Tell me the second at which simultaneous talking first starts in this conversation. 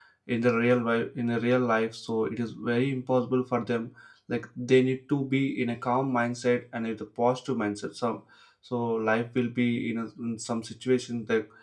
none

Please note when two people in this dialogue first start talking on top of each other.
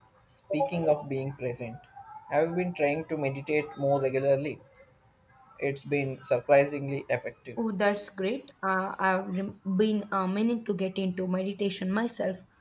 none

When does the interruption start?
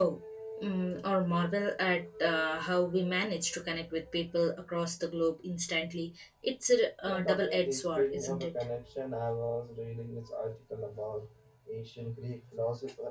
7.1 s

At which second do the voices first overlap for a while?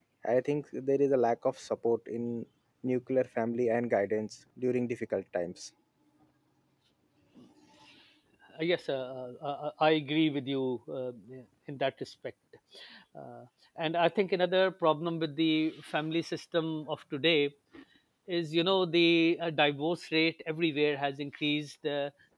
none

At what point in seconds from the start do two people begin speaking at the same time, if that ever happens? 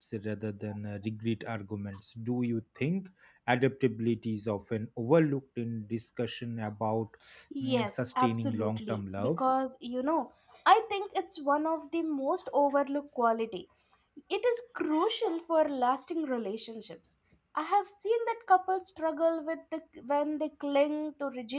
7.6 s

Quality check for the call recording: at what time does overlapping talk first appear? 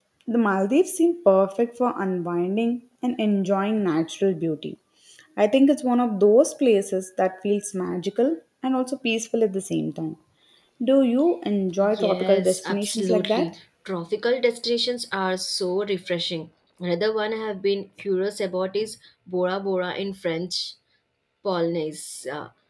11.8 s

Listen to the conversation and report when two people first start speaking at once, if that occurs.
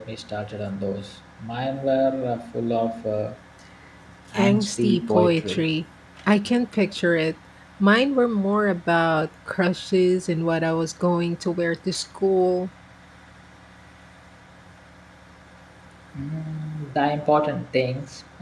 4.3 s

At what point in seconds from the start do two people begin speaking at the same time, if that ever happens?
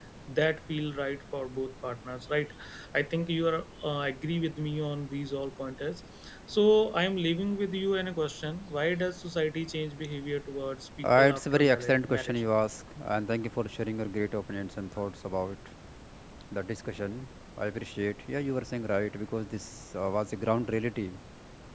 11.0 s

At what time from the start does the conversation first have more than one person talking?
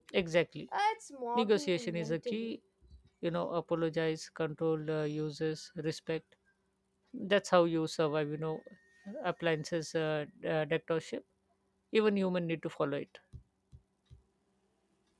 1.4 s

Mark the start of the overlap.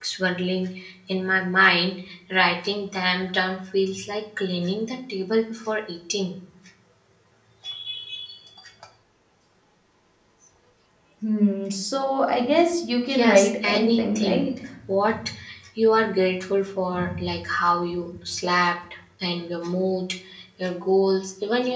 13.1 s

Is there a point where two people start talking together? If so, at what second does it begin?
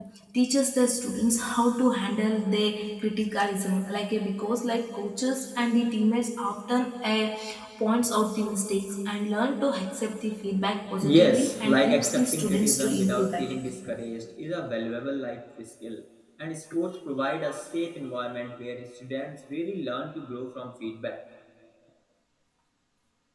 11.0 s

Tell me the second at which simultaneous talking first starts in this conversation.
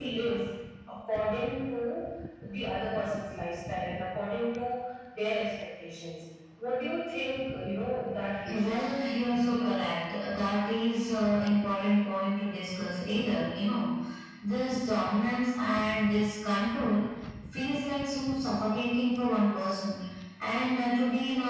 8.5 s

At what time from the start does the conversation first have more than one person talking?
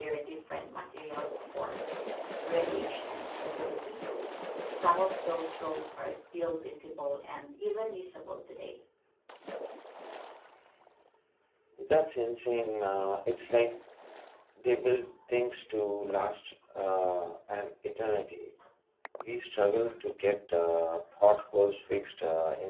none

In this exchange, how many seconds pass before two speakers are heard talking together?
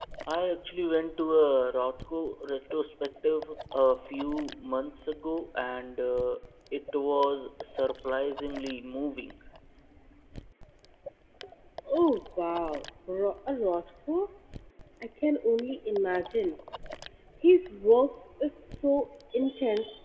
none

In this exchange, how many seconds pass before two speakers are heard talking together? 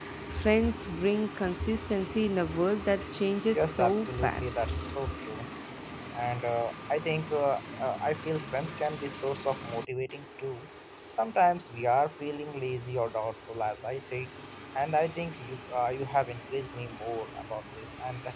3.5 s

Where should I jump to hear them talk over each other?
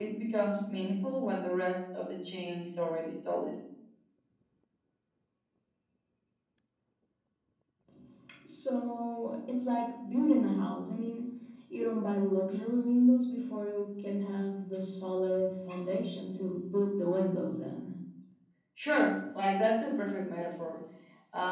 none

